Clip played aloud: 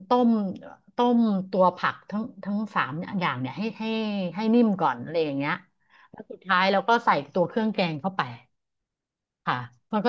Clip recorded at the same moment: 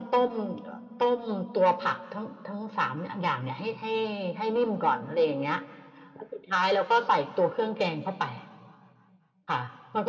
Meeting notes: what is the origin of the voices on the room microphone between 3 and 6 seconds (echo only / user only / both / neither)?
echo only